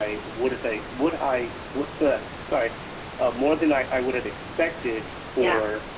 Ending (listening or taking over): listening